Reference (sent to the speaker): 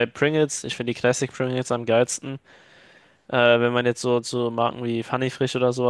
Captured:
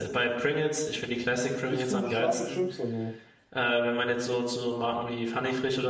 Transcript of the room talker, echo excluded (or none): Isst du scharfe Chips? Also,